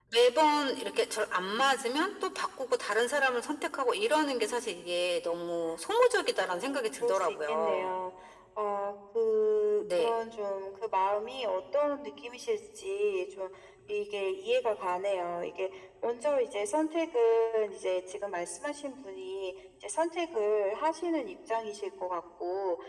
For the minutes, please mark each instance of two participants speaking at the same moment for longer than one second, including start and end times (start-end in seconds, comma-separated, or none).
6.6-7.9